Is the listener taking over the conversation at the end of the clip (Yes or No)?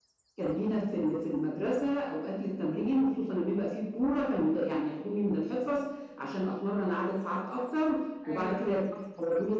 No